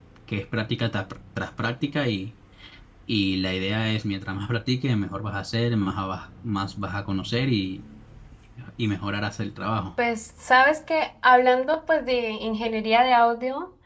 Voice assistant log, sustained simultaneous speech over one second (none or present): none